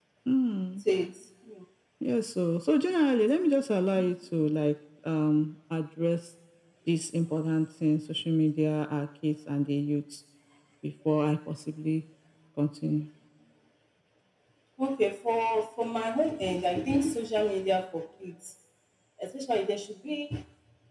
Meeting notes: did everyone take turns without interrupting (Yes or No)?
Yes